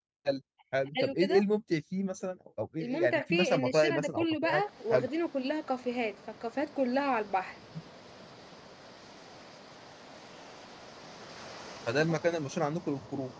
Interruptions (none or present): present